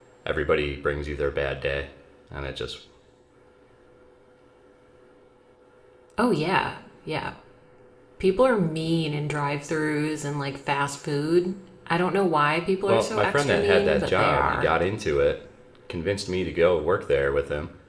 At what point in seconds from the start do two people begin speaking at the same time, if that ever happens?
13 s

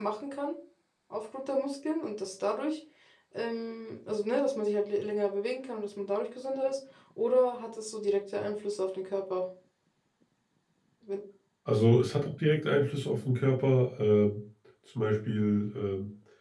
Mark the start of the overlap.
none

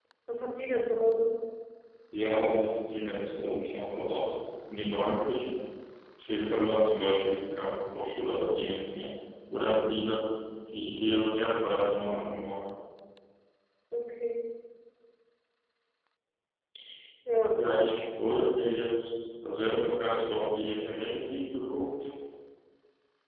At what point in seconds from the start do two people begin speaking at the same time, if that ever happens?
none

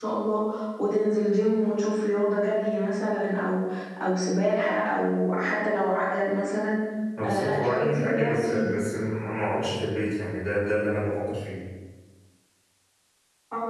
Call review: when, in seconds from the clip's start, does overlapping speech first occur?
7 s

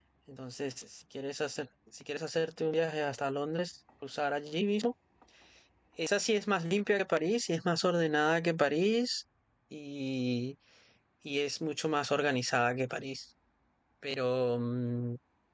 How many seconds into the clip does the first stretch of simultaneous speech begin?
none

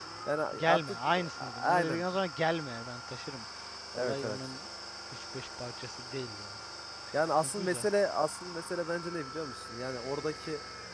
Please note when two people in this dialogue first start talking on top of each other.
1 s

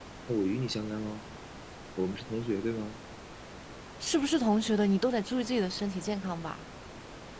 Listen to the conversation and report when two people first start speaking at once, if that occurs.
none

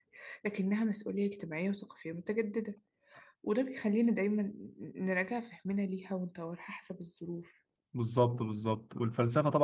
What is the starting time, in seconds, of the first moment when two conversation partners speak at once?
none

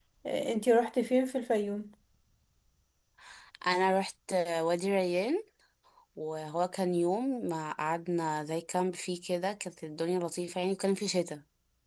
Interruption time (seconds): none

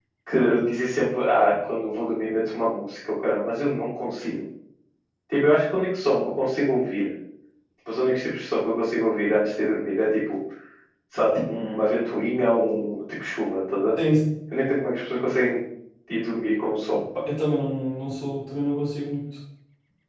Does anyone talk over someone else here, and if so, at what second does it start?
none

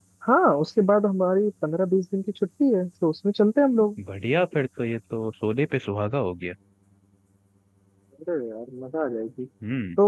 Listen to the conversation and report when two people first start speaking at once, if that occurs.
none

